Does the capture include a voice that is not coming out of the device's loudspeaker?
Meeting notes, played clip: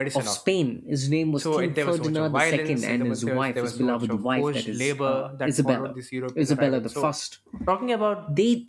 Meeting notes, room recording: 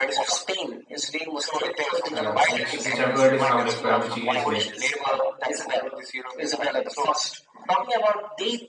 Yes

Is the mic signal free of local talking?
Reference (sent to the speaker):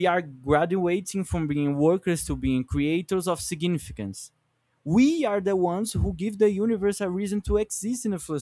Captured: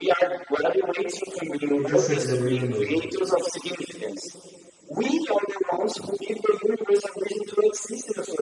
No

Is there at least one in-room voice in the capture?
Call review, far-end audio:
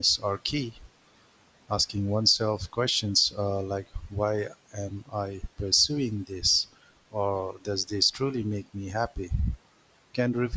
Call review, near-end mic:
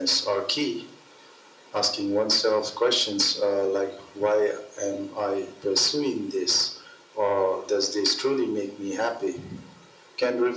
No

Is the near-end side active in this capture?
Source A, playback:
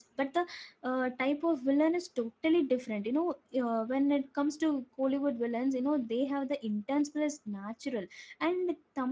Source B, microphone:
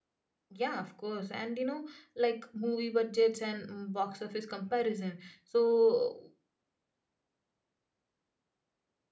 Yes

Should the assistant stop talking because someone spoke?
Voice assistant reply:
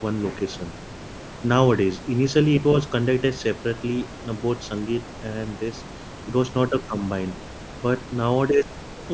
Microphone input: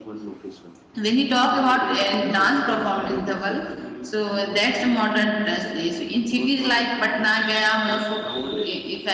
Yes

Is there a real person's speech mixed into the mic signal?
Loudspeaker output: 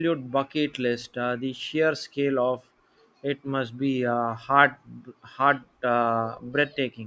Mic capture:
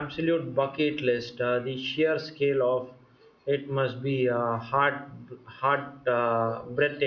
No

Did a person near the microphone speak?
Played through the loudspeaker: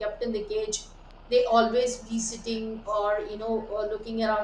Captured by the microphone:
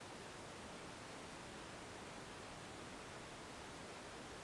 No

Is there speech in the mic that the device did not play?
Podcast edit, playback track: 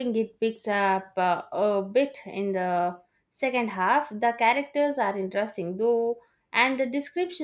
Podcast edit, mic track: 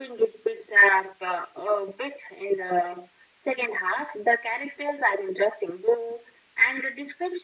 No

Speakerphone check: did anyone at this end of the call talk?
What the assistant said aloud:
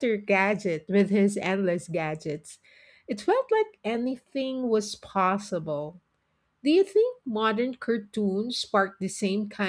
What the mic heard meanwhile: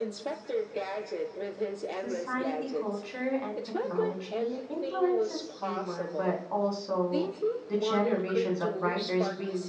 Yes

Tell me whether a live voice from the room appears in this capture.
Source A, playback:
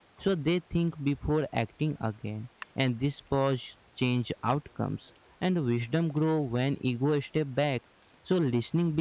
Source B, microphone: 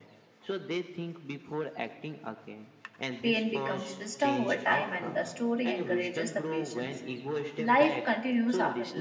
Yes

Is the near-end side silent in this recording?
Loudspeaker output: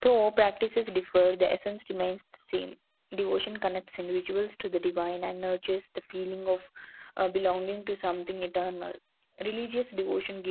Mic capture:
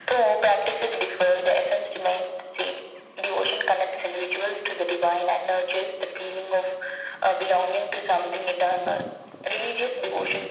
Yes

